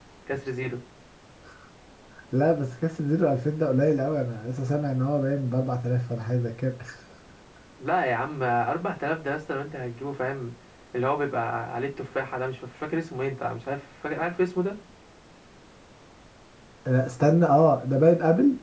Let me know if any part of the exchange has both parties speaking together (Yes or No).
No